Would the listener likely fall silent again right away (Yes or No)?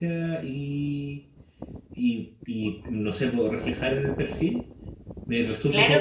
No